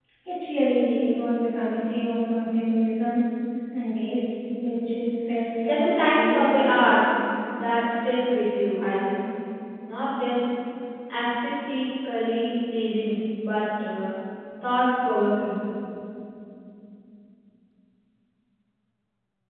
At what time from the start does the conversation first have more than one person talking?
5.6 s

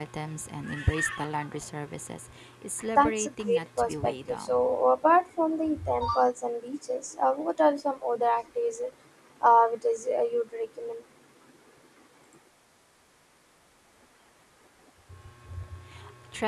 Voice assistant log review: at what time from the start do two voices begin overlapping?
3.0 s

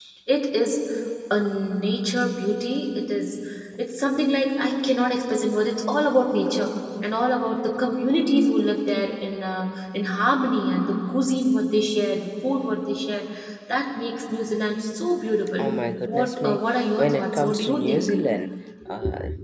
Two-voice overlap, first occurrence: 16.2 s

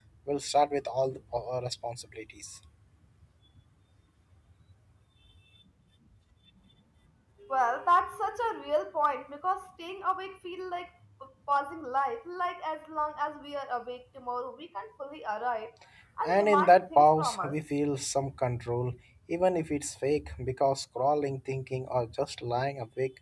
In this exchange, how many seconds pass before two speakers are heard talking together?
16.2 s

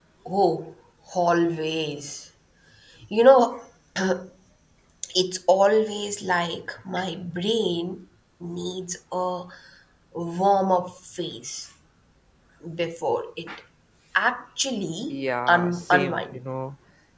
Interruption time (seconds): 15.1 s

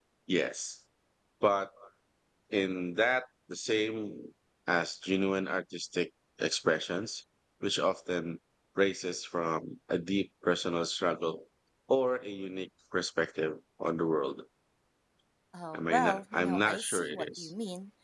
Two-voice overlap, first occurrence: 15.7 s

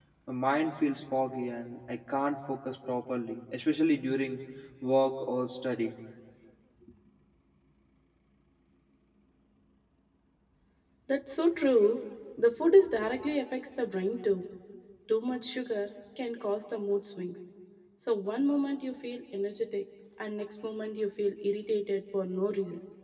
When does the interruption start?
none

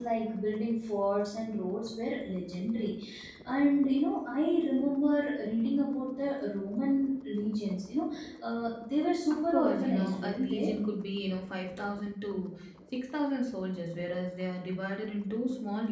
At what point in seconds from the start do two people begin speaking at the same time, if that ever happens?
9.3 s

